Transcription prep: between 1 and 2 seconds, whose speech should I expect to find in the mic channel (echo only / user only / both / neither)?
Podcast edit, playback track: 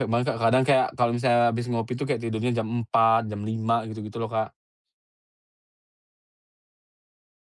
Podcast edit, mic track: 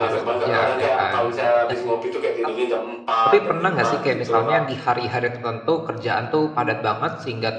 both